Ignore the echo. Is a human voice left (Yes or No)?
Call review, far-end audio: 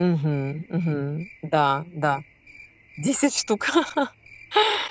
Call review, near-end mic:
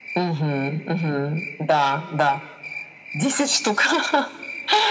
No